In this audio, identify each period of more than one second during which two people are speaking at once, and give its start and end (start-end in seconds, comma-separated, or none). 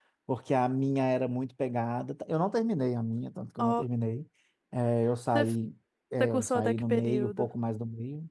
6.2-7.5